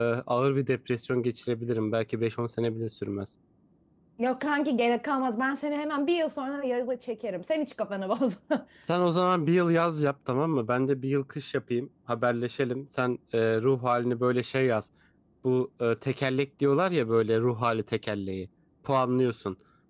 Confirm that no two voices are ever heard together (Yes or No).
Yes